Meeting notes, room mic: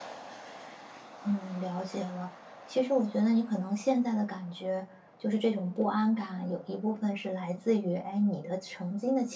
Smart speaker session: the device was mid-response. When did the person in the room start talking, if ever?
1.2 s

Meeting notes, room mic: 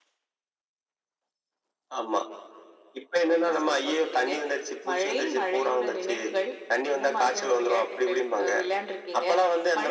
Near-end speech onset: none

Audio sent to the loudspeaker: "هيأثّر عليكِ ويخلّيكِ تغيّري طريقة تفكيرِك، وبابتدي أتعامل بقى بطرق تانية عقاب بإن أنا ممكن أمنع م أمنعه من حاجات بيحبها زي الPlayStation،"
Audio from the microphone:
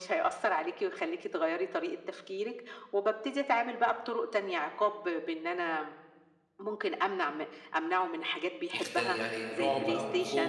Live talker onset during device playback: 8.7 s

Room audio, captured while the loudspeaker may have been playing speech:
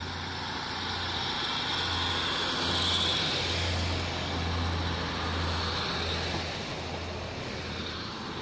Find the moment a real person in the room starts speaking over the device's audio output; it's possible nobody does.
none

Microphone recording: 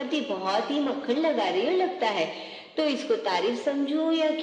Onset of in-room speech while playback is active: none

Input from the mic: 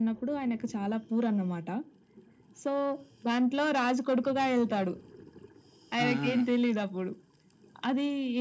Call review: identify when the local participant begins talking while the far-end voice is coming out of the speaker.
6.0 s

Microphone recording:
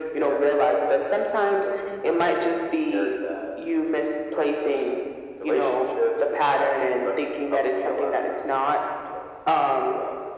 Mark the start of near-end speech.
none

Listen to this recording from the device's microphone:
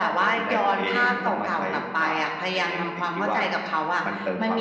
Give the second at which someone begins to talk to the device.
none

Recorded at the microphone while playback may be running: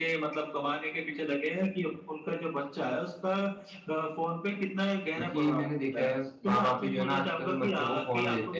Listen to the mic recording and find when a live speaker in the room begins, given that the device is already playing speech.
5.1 s

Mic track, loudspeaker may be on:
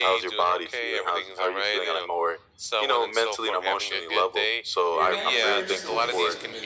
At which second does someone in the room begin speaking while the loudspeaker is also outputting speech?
4.9 s

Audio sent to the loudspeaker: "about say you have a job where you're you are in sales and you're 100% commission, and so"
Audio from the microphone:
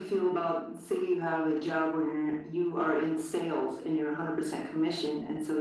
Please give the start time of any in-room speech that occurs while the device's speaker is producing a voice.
none

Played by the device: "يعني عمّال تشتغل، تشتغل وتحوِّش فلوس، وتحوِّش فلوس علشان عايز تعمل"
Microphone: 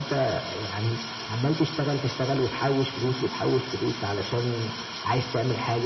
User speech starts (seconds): none

